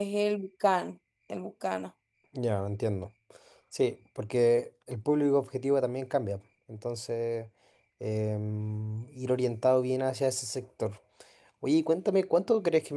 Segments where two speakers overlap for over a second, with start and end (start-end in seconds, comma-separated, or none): none